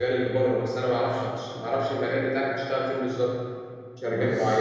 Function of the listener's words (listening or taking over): listening